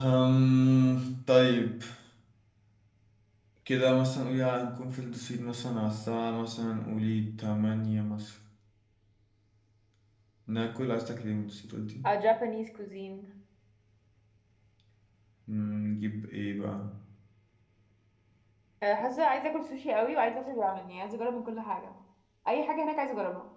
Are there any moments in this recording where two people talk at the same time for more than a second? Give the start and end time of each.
none

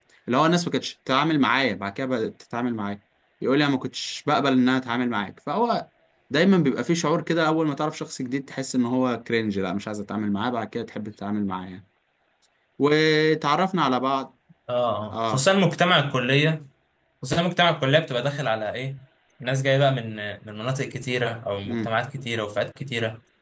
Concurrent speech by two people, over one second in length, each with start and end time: none

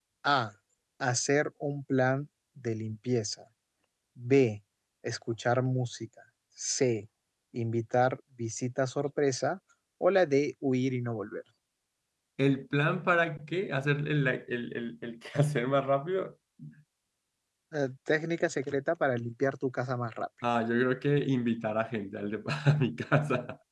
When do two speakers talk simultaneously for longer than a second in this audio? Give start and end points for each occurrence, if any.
none

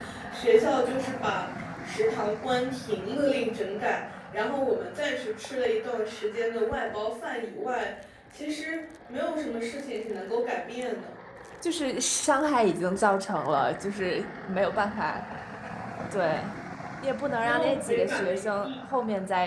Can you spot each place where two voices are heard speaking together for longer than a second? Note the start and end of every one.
17.4-18.7

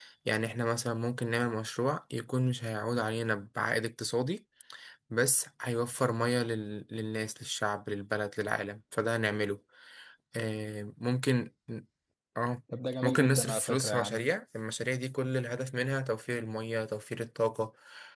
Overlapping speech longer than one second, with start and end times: 13.0-14.3

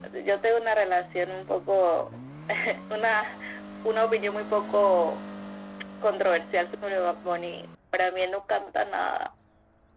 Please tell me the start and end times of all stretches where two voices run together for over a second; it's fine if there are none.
none

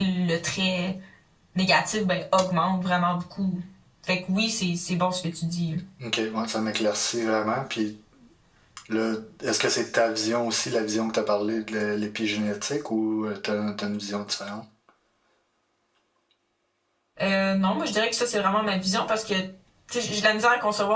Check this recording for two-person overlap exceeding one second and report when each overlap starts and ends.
none

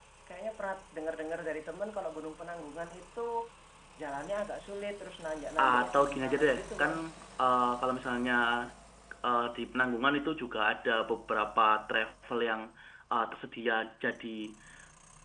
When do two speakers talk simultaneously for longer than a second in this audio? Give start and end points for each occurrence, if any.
5.6-6.9

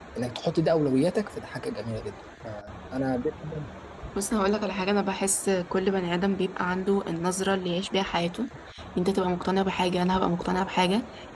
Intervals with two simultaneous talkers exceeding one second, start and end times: none

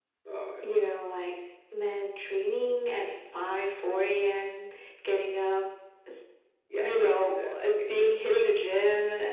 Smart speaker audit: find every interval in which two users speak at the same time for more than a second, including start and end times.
6.8-8.3

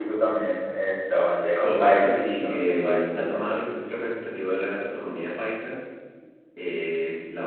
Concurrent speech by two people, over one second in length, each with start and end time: 1.6-3.0

